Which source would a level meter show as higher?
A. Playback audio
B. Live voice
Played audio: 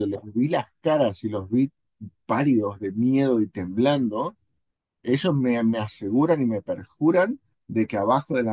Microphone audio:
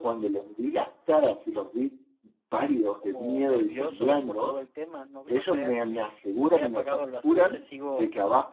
A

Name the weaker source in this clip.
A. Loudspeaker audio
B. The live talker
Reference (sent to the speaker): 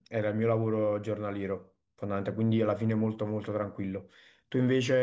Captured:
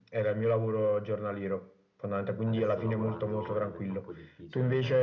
B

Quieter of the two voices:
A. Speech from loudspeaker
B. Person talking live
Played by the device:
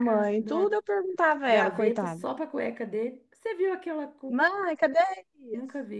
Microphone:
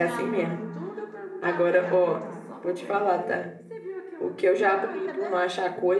A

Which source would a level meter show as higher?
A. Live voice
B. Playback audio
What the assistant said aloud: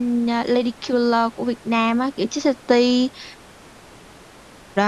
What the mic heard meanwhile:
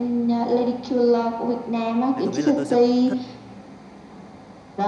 B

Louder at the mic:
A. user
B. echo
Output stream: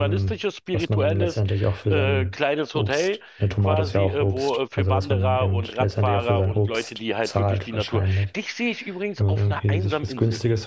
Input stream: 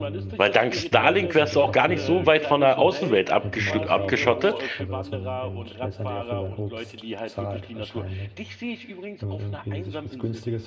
A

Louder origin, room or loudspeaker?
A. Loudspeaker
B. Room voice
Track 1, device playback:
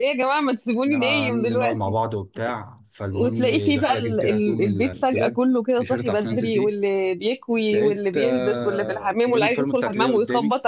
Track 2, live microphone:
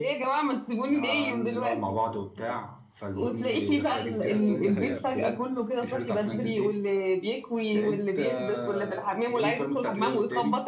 A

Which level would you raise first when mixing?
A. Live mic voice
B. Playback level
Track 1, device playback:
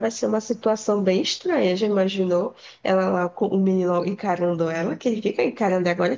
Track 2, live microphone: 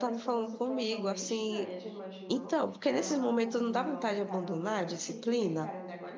B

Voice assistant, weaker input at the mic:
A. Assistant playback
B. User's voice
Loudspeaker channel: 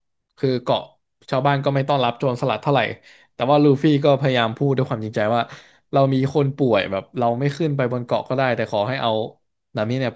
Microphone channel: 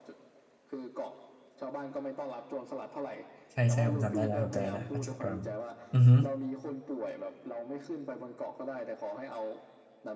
A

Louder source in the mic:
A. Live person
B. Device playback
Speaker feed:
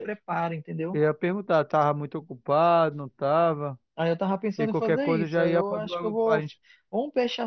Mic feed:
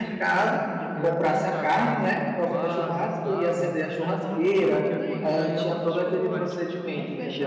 A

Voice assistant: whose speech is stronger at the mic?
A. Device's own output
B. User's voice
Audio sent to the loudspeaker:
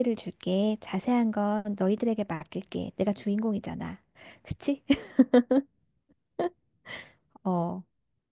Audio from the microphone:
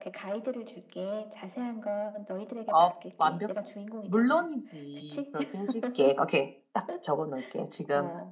B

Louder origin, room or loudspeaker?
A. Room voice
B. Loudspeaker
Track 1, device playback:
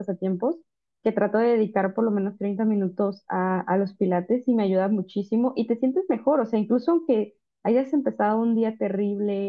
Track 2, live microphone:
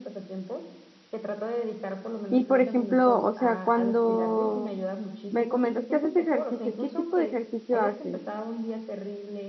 A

